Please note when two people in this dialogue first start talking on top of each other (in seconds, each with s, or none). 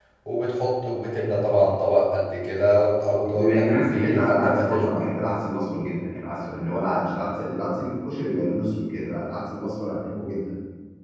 3.3 s